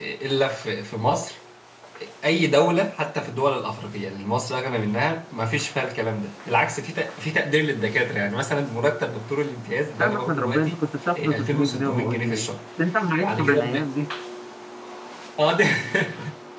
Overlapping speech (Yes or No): Yes